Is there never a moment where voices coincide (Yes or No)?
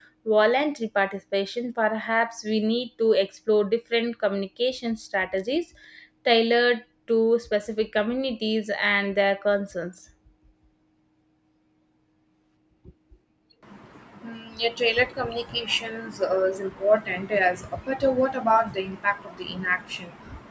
Yes